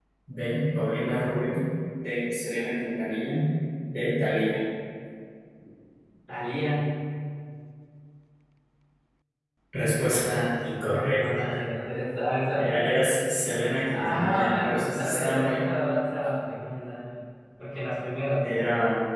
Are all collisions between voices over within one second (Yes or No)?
No